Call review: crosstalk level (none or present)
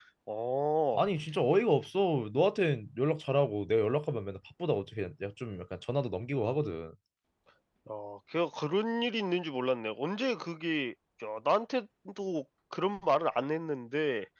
none